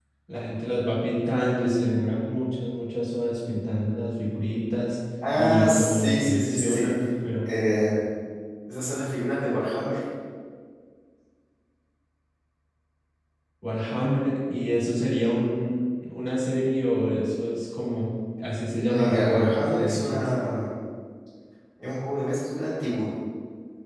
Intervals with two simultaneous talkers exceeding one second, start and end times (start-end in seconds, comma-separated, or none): 5.4-6.8, 18.9-20.3